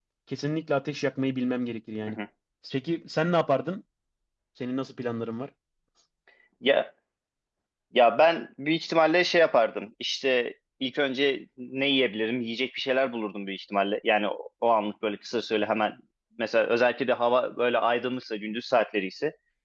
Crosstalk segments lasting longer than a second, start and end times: none

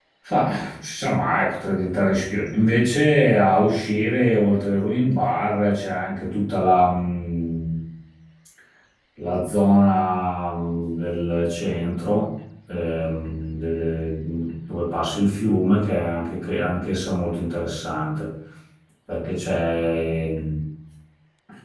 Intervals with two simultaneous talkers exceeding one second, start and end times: none

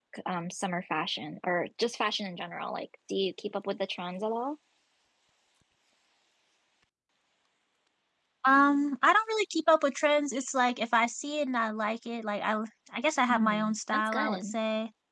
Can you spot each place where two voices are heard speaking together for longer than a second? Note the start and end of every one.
13.3-14.5

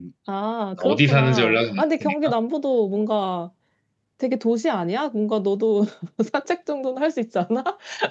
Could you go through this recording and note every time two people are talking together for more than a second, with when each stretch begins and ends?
0.8-2.3

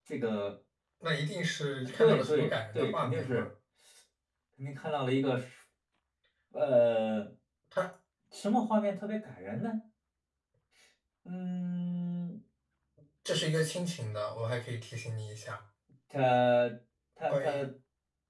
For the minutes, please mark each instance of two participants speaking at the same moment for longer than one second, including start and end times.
2.0-3.5

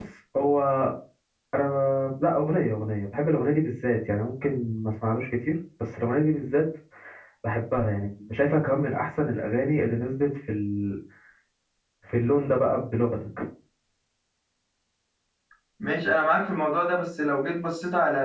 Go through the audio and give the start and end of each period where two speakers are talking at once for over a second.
none

